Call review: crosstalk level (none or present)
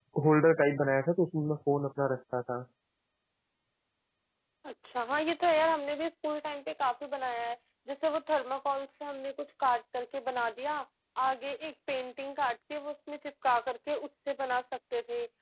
none